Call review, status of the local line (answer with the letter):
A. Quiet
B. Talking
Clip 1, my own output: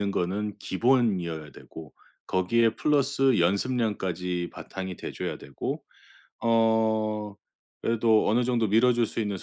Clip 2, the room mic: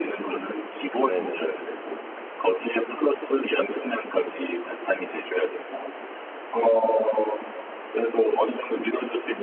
B